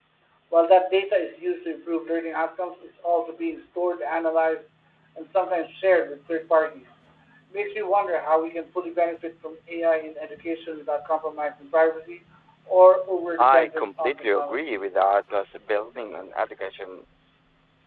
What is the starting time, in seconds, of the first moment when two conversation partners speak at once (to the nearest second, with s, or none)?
13 s